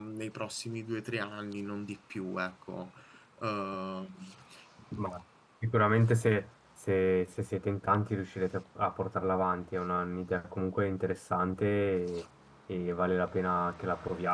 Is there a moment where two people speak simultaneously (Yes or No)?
No